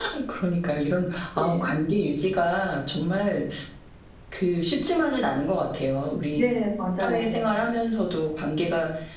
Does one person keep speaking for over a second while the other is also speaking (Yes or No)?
No